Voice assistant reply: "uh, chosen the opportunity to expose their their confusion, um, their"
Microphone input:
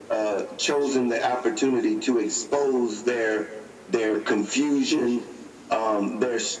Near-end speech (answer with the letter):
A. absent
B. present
A